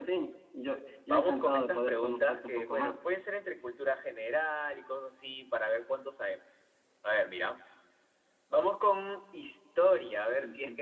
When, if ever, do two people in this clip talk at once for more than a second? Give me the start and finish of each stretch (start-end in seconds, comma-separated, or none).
1.1-3.0